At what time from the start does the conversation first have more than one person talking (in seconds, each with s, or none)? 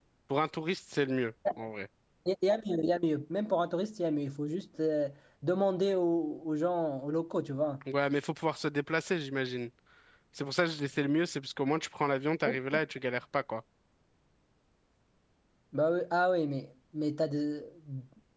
none